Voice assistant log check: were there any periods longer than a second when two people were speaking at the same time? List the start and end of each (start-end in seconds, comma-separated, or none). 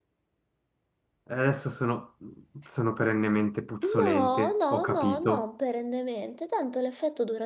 3.8-5.4